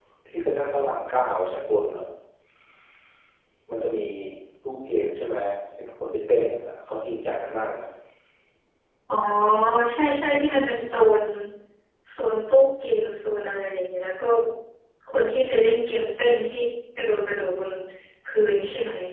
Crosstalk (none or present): none